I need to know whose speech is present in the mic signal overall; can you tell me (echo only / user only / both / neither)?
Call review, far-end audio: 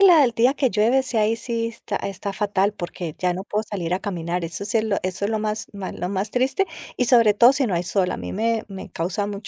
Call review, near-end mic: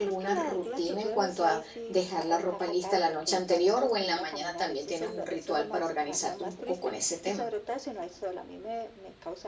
both